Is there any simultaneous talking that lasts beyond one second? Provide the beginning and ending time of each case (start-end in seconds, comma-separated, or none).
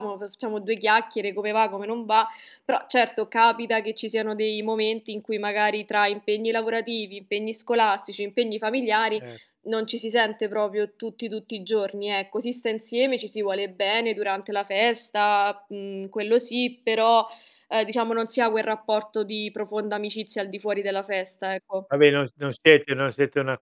none